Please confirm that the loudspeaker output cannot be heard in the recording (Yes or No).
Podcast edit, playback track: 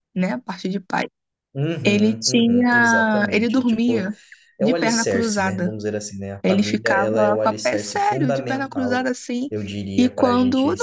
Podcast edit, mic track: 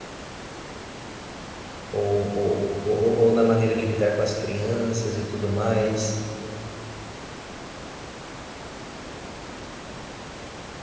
Yes